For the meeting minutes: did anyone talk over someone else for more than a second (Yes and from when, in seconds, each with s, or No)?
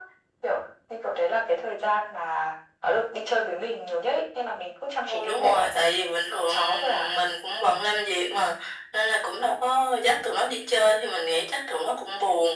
Yes, from 5.1 s